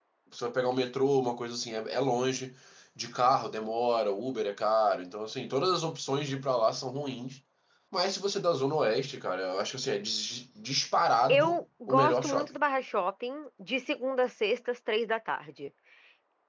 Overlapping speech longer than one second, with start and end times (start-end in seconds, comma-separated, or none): 11.3-12.6